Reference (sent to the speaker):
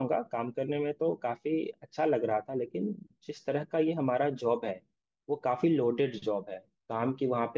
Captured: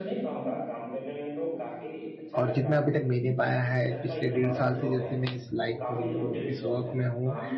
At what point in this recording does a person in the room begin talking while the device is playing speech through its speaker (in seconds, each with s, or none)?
2.4 s